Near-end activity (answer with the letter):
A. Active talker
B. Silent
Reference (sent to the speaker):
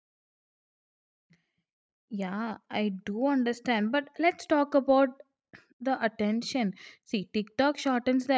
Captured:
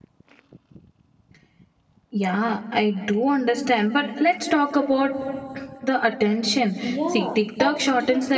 A